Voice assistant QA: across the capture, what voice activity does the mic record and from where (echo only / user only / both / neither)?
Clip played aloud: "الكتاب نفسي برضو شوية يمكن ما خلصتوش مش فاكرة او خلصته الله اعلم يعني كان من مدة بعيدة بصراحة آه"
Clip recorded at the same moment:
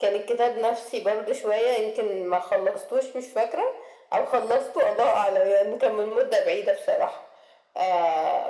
echo only